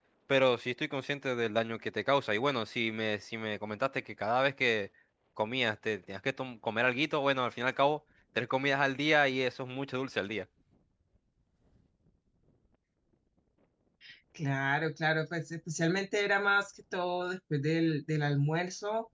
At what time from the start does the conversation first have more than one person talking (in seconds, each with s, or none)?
none